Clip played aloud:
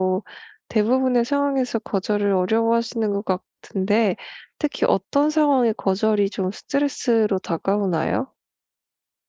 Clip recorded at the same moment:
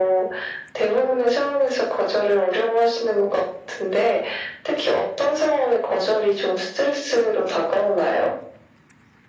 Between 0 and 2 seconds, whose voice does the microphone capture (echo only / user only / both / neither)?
echo only